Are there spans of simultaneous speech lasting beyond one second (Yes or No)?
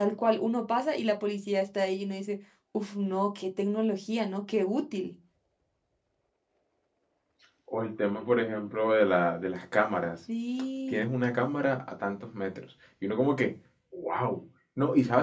No